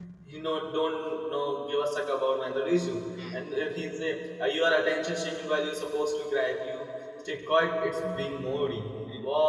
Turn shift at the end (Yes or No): No